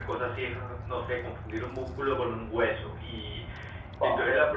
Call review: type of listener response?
taking over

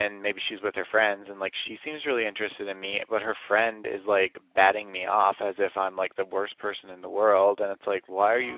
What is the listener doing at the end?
listening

